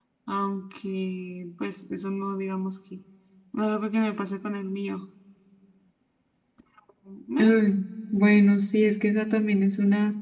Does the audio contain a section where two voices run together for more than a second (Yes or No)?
No